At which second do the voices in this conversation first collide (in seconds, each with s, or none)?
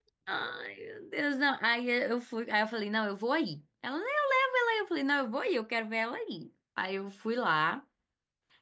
none